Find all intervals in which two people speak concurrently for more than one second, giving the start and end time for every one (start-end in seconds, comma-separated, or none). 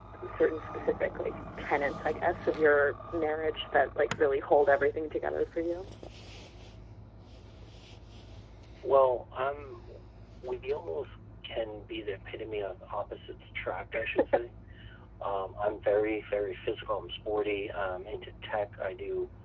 none